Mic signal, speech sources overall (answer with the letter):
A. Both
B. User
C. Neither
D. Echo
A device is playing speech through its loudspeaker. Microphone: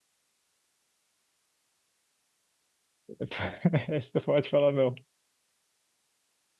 B